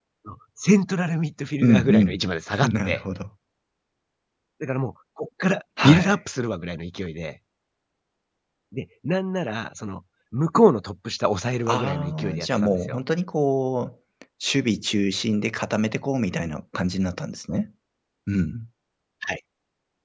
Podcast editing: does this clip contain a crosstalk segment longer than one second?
Yes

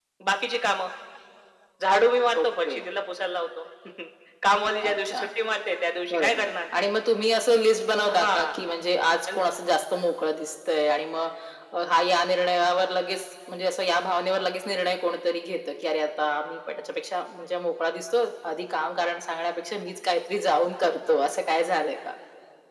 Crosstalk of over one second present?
No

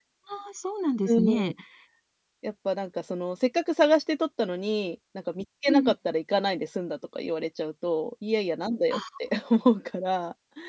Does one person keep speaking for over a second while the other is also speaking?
No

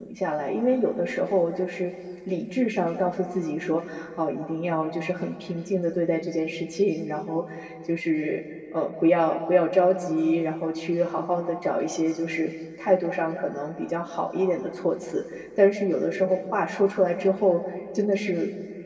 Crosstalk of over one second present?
No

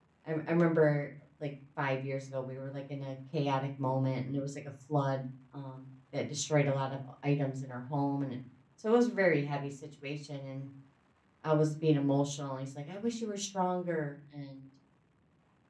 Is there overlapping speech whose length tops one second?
No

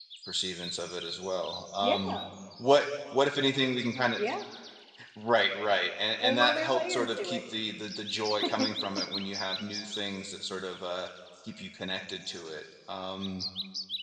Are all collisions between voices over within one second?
No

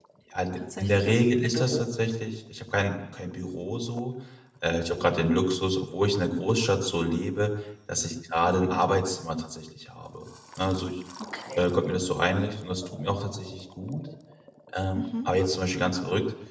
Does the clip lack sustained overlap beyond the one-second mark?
No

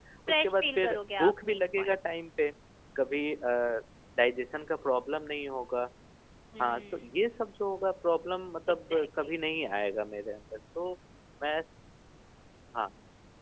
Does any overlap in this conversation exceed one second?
Yes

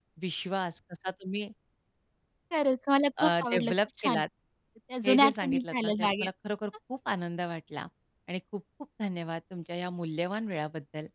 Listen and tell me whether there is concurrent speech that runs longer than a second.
Yes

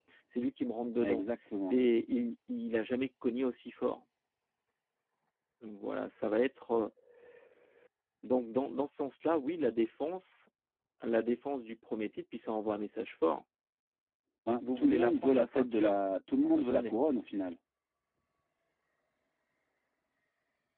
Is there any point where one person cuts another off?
Yes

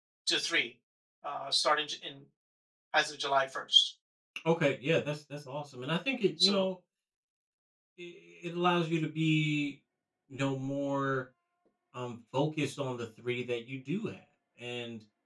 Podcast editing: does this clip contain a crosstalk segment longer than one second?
No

